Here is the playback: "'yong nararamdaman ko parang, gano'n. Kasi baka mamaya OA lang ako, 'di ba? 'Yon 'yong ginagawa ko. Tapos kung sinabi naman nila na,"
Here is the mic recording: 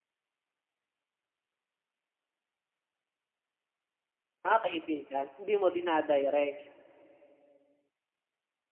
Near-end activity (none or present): present